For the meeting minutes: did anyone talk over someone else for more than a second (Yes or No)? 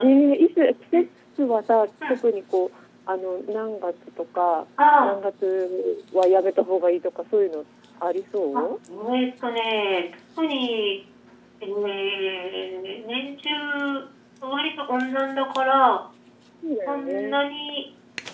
No